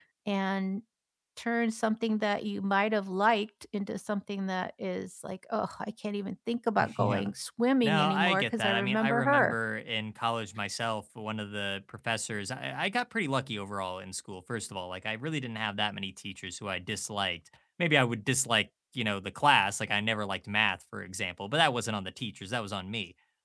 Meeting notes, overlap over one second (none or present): present